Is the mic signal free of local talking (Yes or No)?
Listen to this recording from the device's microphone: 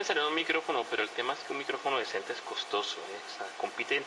Yes